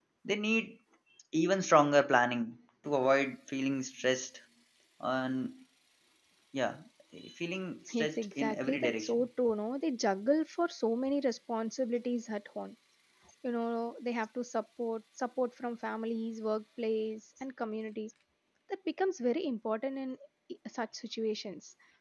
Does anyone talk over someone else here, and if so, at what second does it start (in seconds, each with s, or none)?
7.9 s